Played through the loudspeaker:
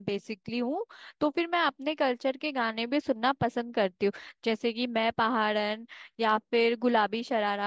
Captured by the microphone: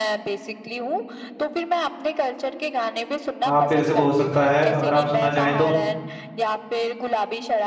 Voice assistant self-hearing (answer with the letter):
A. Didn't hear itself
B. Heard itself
B